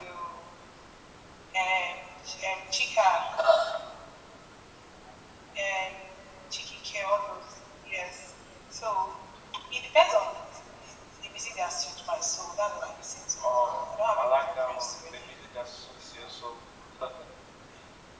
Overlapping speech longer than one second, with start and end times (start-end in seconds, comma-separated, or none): 13.4-15.3